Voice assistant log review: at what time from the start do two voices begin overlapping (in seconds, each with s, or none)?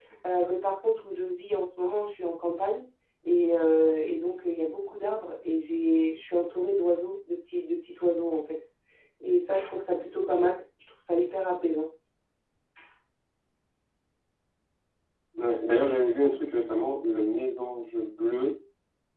none